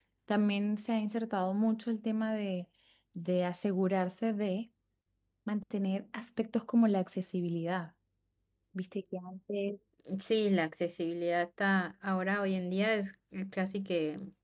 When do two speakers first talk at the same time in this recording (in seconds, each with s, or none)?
none